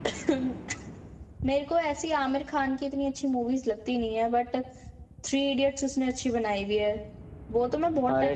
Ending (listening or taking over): taking over